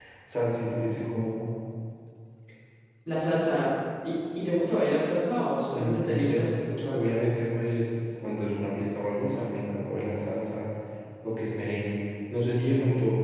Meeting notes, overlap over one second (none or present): present